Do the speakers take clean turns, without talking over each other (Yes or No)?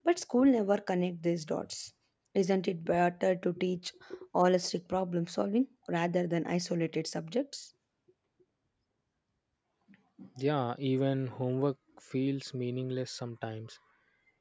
Yes